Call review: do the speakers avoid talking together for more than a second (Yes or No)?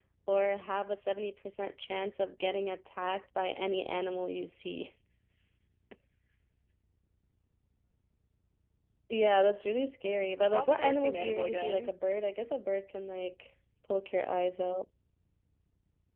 No